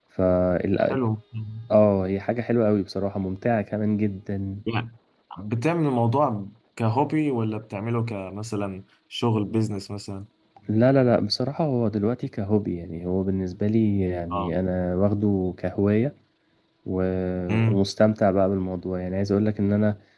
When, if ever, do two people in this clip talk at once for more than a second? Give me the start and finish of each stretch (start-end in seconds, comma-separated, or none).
none